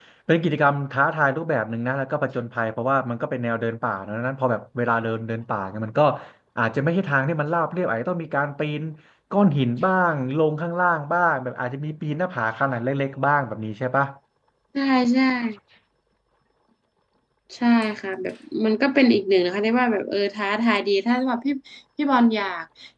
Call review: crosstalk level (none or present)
none